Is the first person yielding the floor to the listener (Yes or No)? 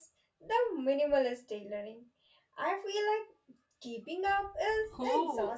Yes